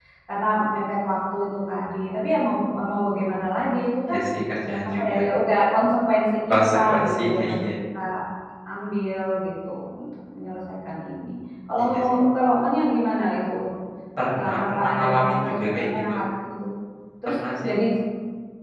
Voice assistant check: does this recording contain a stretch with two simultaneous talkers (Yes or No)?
Yes